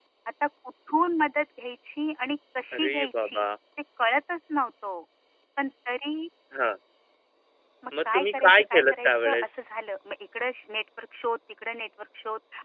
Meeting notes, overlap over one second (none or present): present